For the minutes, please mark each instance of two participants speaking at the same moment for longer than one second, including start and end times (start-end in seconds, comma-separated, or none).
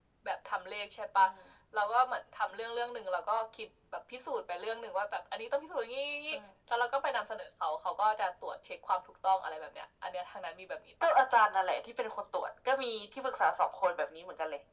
none